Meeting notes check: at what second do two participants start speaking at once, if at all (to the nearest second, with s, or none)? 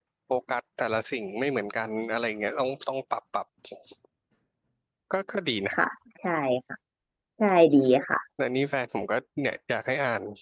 none